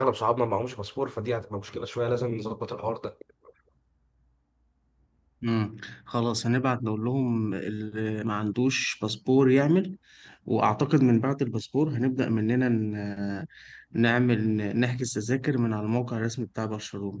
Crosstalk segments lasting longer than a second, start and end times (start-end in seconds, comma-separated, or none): none